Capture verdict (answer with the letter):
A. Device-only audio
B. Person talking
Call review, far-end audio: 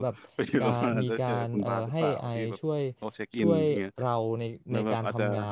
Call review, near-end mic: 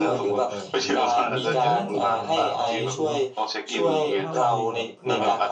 B